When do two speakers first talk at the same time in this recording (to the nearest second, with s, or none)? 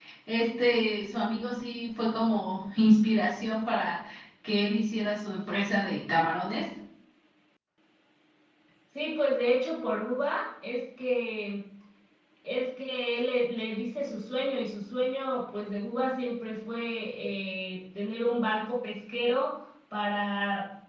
none